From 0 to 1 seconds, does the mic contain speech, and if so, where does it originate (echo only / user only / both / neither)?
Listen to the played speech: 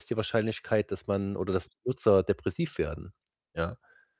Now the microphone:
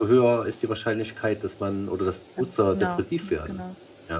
echo only